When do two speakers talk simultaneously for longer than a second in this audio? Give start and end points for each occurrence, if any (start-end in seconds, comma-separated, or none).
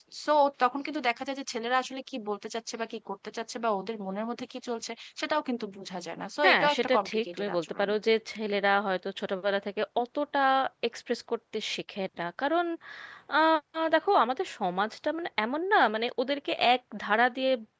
6.4-7.9